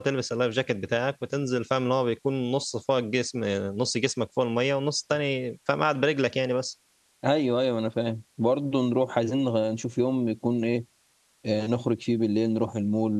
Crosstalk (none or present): none